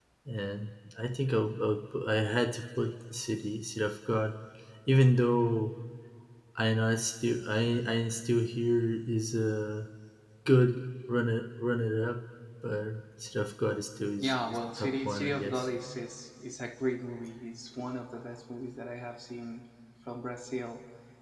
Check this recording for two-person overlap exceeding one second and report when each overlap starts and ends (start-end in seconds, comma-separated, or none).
14.2-15.7